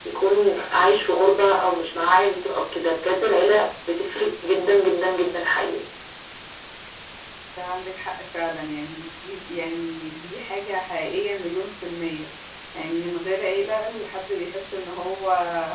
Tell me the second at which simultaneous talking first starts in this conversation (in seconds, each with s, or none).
none